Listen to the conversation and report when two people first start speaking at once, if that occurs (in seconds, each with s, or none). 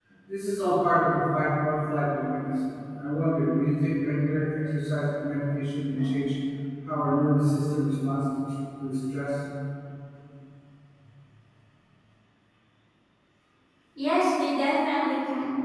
none